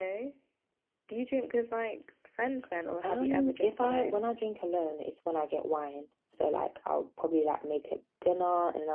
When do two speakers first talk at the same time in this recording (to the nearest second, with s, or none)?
3 s